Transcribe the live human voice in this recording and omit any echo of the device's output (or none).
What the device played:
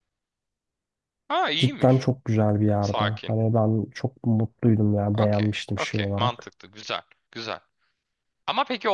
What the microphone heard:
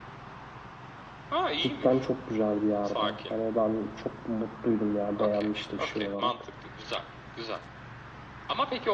none